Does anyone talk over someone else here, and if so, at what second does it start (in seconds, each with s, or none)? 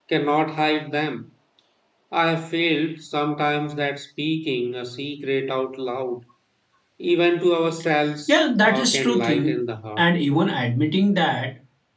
8.3 s